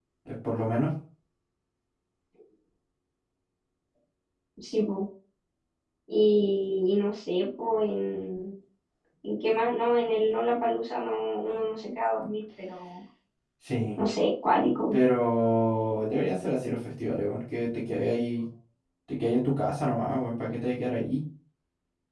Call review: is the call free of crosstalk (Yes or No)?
Yes